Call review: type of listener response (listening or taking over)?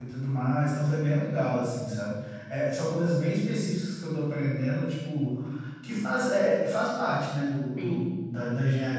listening